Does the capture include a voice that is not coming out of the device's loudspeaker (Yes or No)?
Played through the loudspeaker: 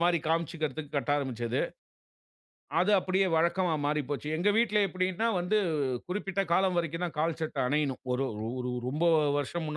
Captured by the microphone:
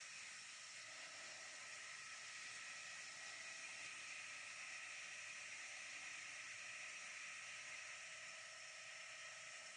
No